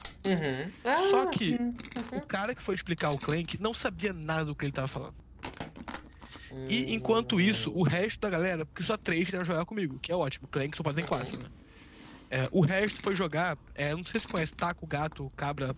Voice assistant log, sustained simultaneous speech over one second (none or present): present